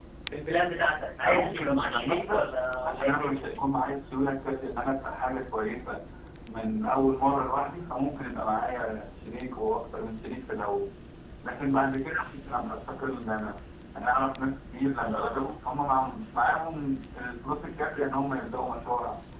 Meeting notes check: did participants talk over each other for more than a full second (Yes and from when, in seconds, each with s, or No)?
Yes, from 1.2 s